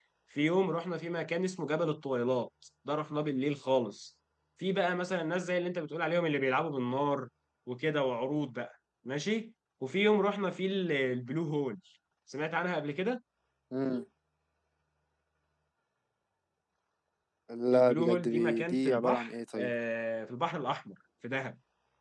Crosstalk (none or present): present